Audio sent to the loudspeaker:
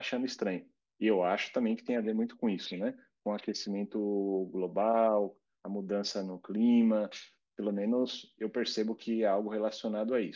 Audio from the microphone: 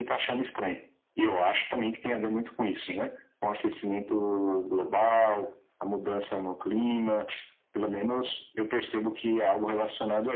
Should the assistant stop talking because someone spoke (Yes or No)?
No